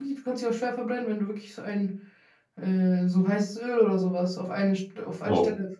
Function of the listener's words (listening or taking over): taking over